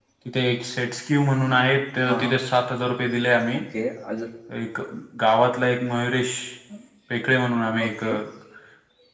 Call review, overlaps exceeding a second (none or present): none